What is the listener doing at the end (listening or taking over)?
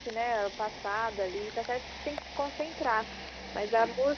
listening